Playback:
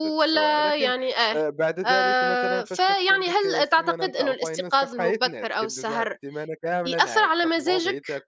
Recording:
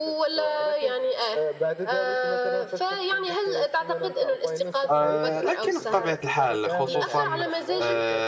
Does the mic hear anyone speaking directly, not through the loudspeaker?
Yes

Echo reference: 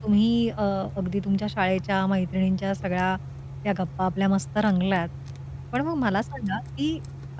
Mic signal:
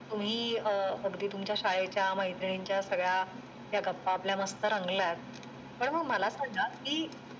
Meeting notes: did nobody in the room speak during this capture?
Yes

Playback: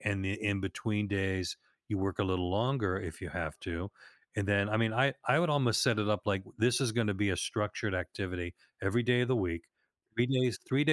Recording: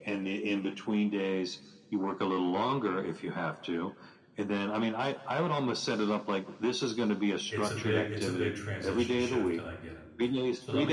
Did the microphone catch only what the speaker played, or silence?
No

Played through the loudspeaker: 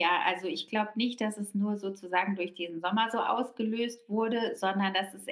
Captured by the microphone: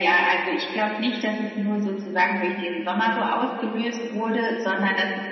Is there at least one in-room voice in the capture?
No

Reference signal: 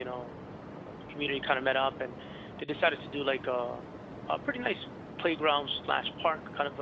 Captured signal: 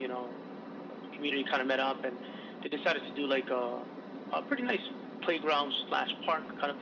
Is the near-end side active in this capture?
No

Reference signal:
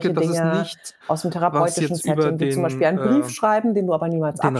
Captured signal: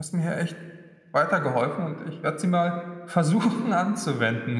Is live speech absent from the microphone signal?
No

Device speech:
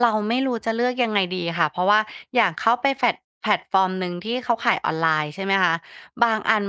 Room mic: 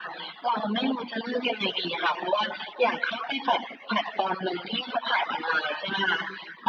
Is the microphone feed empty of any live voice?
Yes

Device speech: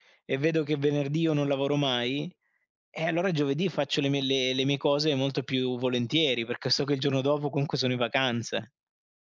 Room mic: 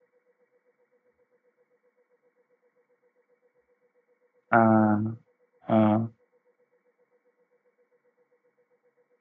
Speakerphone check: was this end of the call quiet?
No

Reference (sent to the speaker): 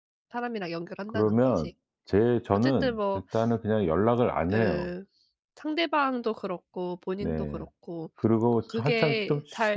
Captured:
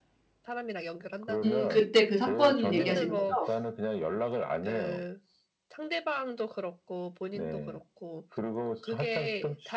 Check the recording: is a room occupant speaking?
Yes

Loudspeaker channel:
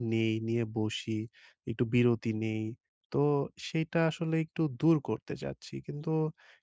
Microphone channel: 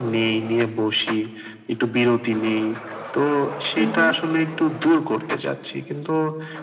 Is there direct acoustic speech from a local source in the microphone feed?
Yes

